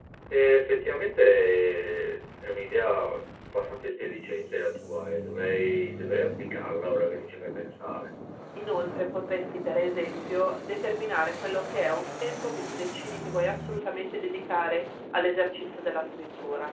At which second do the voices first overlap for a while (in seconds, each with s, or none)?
none